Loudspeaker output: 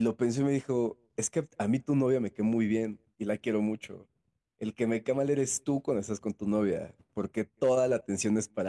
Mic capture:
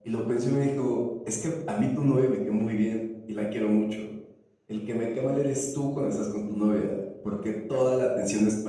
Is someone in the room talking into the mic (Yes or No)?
No